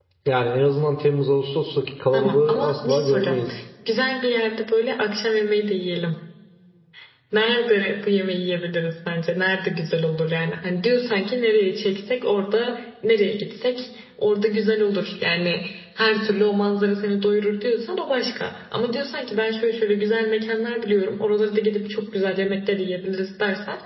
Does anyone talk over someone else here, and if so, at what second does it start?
2.1 s

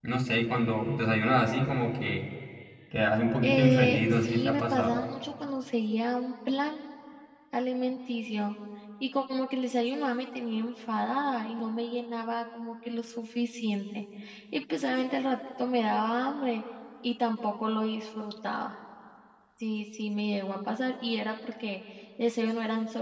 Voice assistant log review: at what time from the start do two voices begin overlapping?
3.4 s

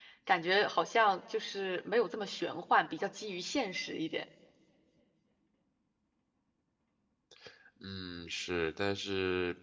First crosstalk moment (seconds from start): none

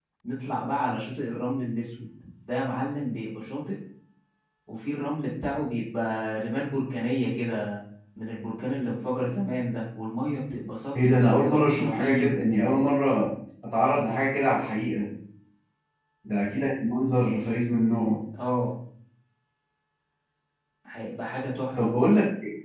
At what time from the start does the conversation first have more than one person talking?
10.9 s

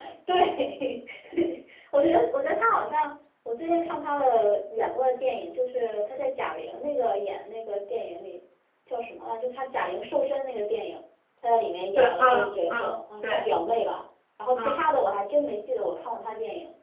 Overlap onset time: 11.9 s

